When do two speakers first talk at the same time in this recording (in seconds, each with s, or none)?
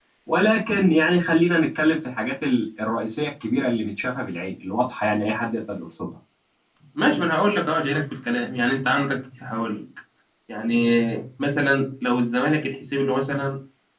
none